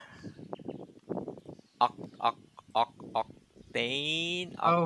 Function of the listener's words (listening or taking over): taking over